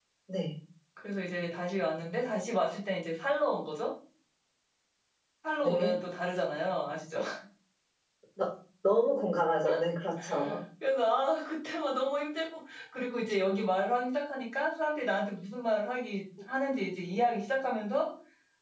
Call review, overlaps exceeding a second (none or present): none